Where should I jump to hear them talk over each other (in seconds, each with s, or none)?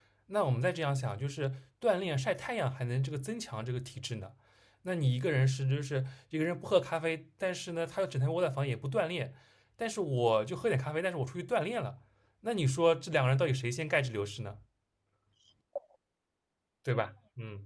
none